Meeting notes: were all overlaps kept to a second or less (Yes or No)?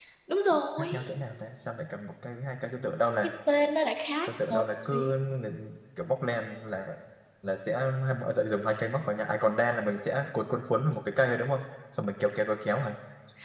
Yes